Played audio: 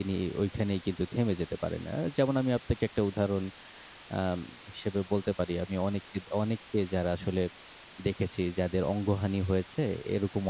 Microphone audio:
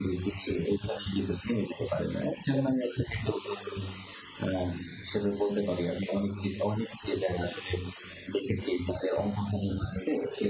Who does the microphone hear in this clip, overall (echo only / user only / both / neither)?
echo only